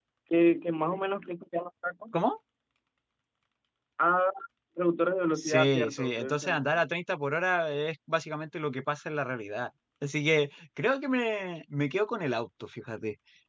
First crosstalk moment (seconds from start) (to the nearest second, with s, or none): 5 s